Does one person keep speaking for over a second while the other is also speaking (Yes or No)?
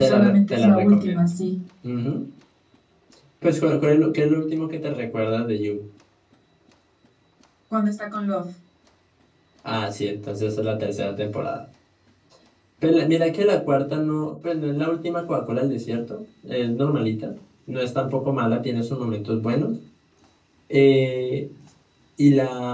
Yes